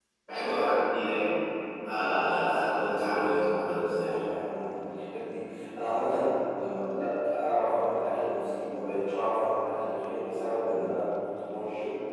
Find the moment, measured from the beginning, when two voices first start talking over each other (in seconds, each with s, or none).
1.9 s